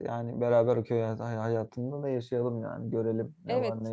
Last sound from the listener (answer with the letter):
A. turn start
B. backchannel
A